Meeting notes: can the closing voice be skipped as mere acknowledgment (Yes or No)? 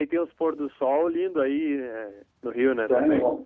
No